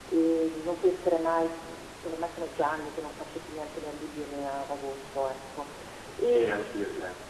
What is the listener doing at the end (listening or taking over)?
taking over